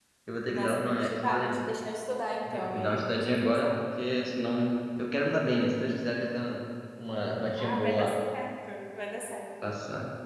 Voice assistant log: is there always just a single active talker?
No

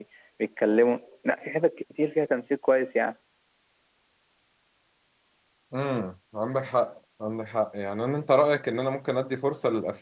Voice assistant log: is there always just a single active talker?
Yes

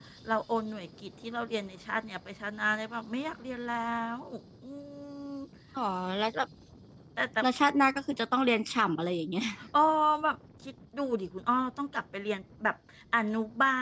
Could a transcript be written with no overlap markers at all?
Yes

